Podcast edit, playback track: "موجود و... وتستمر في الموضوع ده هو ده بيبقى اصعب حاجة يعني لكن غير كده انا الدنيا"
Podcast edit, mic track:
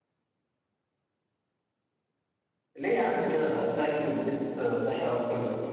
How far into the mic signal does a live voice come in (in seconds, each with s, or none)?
2.7 s